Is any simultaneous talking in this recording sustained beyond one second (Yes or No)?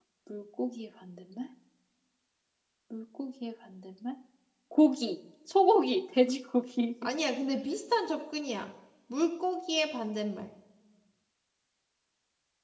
No